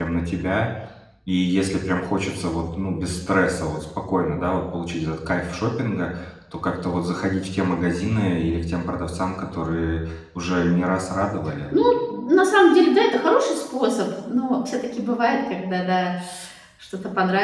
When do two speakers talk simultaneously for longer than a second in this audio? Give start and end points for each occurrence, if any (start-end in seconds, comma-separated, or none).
none